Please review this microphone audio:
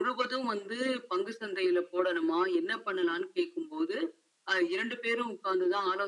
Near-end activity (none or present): none